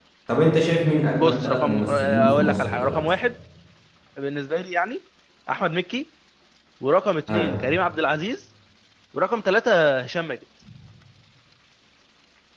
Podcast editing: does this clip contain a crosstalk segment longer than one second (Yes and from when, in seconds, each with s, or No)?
Yes, from 1.1 s